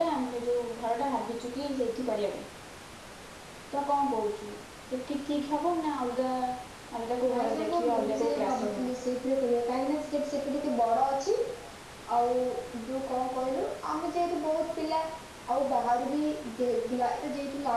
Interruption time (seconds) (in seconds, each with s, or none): 7.3 s